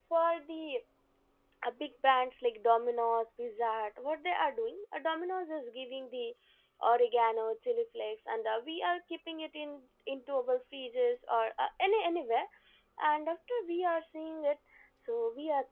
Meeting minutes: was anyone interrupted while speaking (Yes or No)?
No